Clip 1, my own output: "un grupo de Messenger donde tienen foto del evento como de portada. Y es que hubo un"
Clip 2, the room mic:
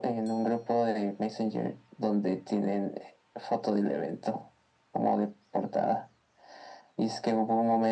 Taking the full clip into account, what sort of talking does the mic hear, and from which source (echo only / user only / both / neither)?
echo only